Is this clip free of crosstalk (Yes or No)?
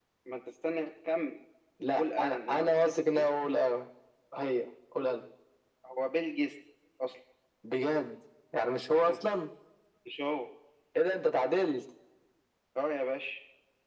No